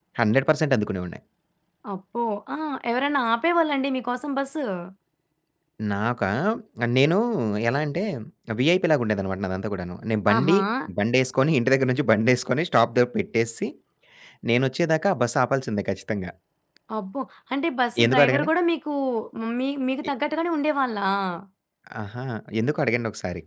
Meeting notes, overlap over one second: none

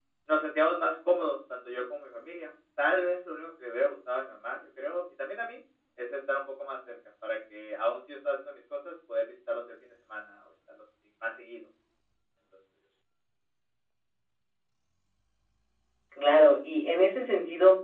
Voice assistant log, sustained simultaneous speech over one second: none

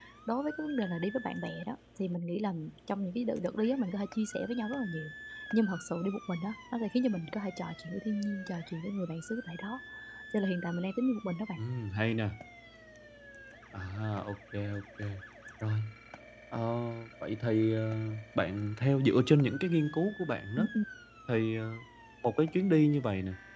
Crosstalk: none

